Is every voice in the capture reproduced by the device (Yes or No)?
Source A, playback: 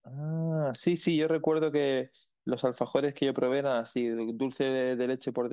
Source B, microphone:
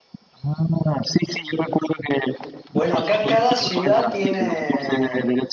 No